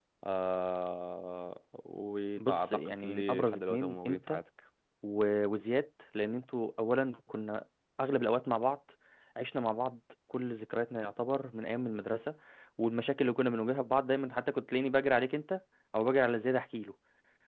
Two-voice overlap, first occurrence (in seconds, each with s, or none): 2.4 s